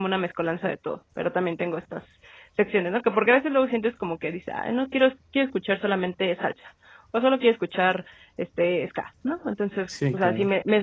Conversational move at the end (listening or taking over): listening